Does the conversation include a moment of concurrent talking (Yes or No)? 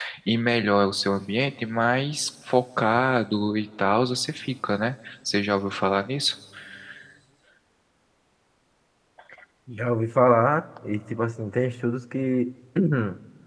No